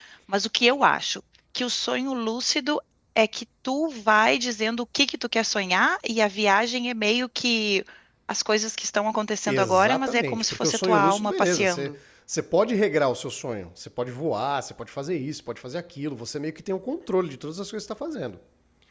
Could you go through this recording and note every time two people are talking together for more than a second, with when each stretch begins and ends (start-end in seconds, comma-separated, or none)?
9.5-11.9